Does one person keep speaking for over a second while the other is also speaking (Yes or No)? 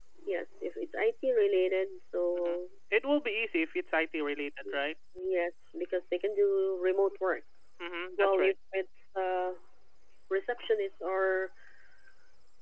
No